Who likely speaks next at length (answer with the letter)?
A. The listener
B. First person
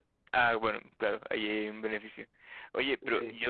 B